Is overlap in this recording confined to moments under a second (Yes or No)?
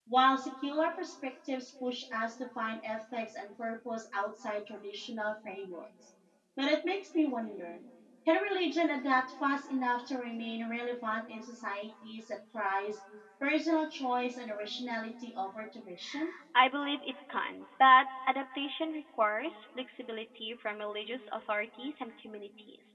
Yes